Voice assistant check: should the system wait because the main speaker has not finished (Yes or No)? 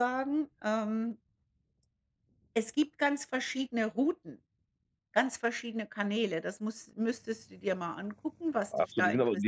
No